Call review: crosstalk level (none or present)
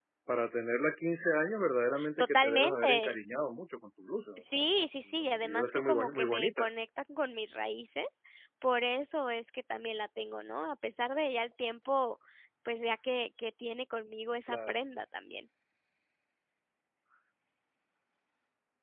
present